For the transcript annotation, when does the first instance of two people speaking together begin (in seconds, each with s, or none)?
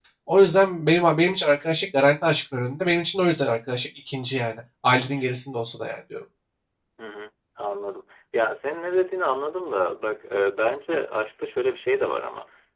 none